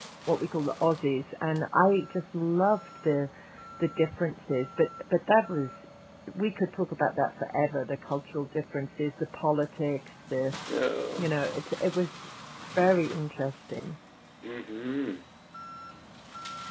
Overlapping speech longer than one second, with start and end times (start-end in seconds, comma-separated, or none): none